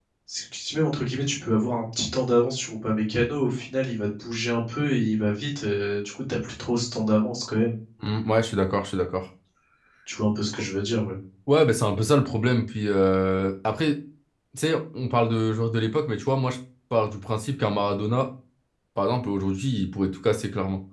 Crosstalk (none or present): none